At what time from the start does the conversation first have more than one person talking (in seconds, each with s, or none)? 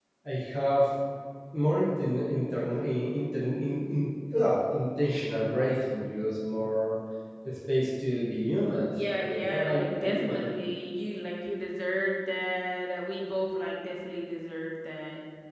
8.9 s